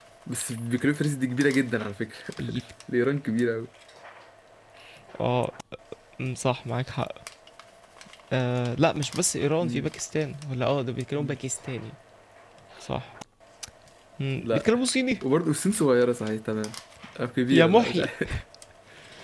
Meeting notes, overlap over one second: none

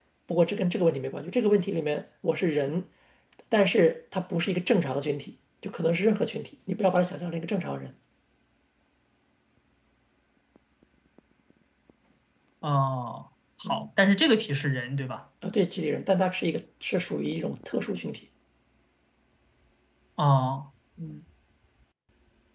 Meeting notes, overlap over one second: none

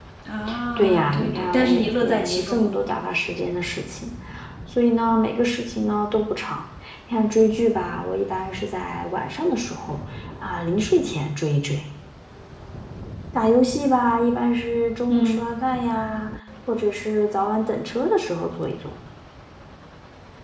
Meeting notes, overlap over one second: present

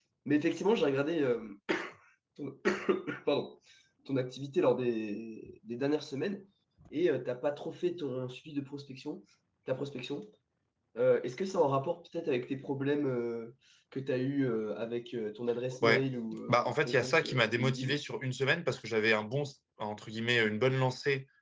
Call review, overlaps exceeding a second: present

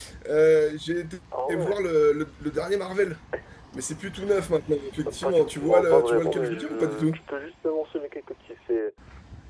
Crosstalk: present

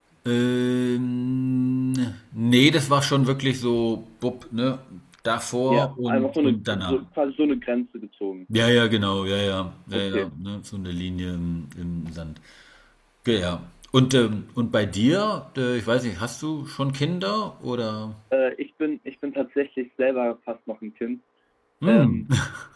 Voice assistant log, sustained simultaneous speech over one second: present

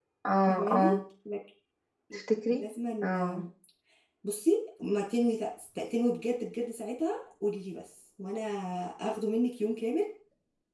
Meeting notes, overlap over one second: none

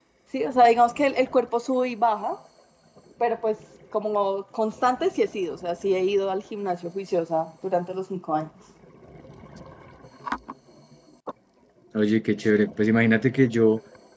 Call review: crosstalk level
none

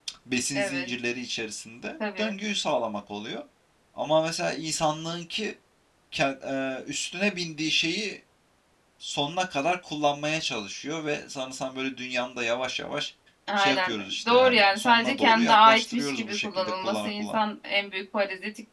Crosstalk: present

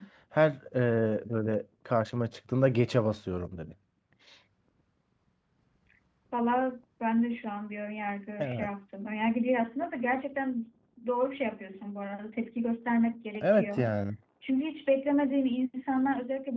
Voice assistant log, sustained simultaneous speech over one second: none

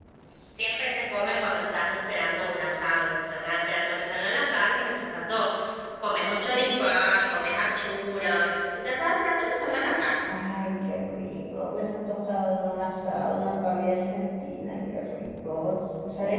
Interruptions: none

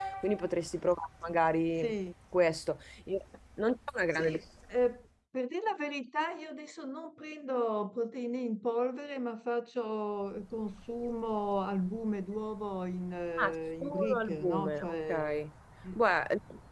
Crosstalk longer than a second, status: present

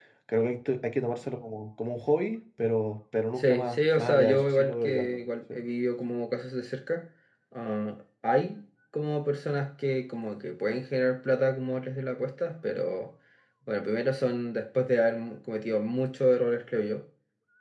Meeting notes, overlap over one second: present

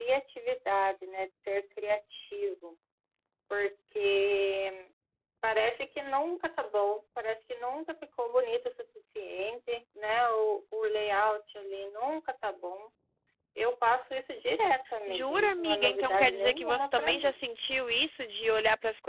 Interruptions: present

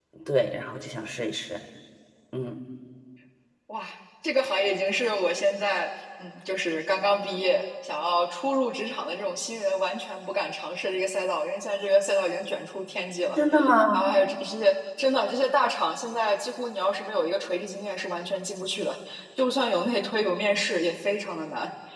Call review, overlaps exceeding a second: none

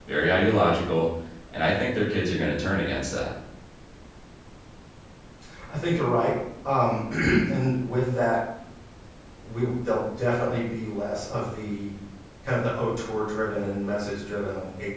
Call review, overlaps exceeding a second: none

